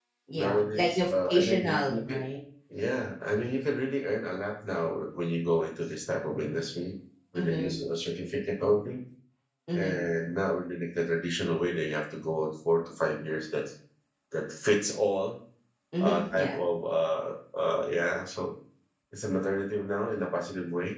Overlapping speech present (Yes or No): Yes